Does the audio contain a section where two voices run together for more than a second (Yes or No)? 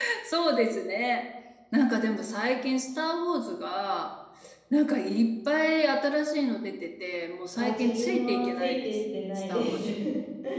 Yes